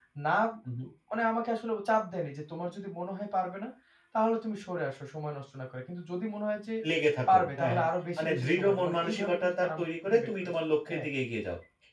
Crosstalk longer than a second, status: present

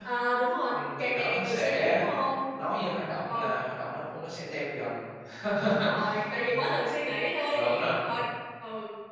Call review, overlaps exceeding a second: present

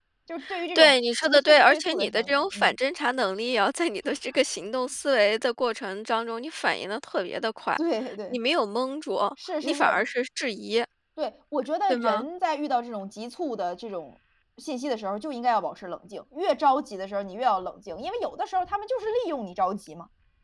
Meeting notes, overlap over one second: present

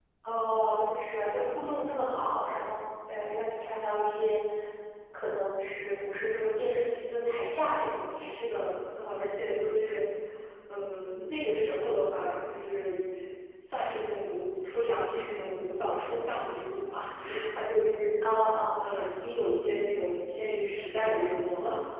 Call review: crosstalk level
none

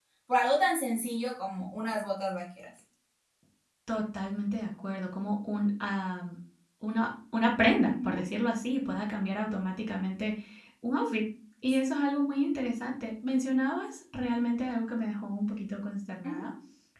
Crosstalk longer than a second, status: none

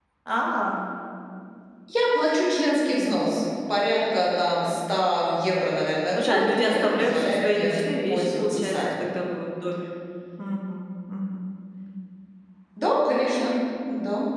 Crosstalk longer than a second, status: present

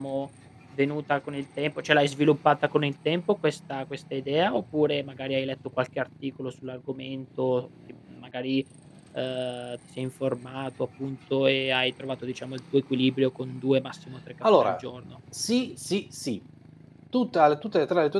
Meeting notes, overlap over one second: none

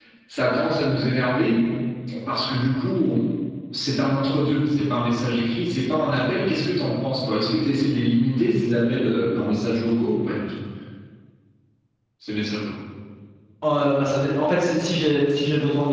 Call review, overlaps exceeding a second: none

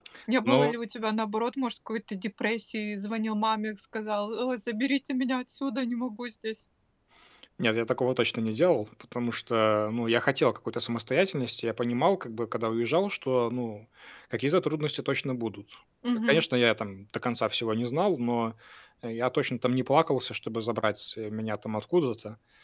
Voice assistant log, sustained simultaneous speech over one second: none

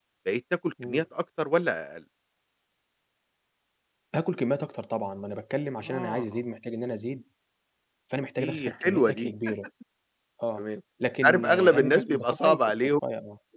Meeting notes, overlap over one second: present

